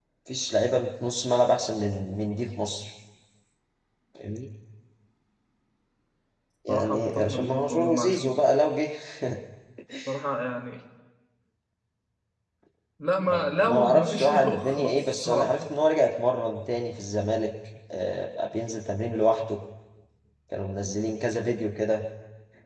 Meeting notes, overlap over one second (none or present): present